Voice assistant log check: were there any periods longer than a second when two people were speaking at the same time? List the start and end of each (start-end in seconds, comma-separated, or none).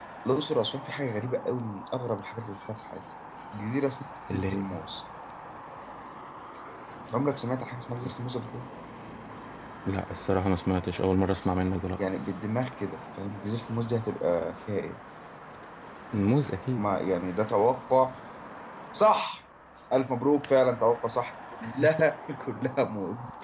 none